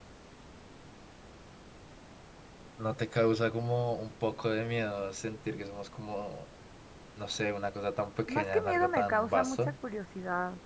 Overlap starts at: 8.3 s

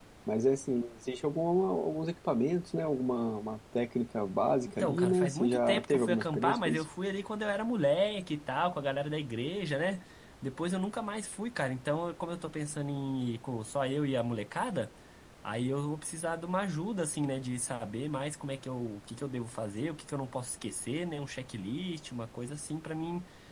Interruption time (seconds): 4.7 s

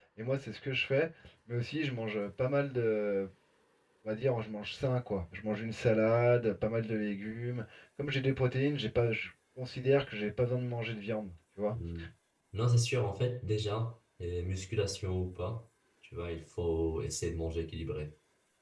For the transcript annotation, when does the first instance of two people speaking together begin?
none

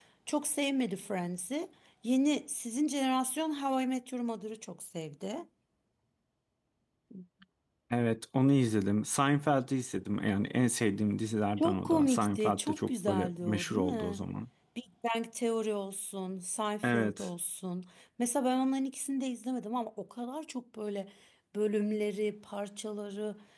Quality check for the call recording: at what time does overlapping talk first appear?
11.6 s

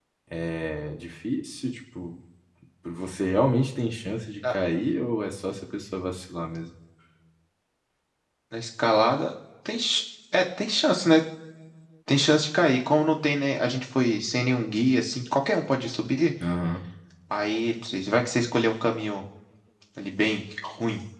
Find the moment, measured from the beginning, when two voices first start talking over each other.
none

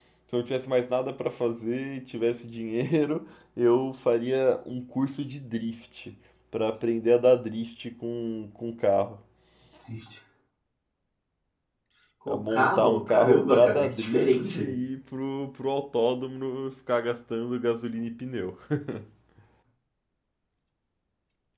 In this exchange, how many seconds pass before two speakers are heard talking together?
12.3 s

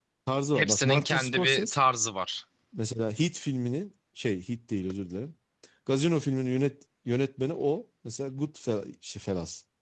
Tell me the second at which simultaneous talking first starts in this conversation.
0.6 s

